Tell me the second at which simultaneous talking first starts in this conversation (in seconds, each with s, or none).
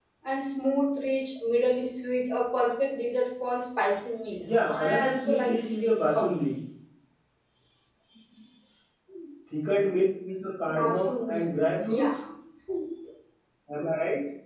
4.4 s